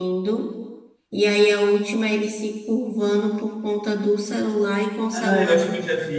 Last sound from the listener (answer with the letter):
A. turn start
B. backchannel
A